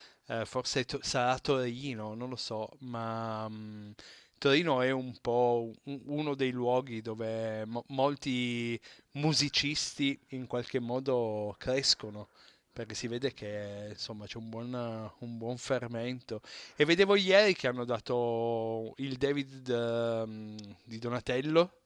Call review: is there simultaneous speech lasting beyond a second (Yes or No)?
No